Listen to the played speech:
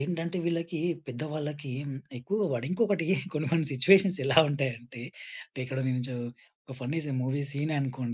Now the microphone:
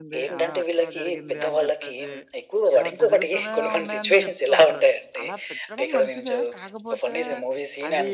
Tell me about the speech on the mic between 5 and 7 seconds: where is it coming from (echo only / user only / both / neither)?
both